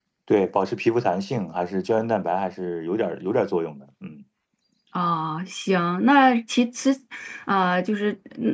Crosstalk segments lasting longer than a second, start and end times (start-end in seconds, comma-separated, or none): none